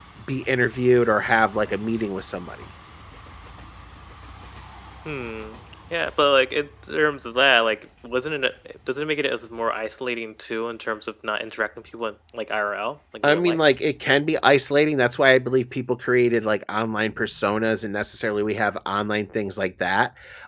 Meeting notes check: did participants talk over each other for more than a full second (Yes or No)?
No